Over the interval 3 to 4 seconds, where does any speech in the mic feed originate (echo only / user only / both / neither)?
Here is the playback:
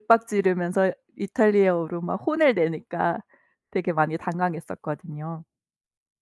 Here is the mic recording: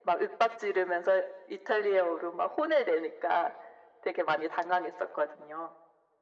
echo only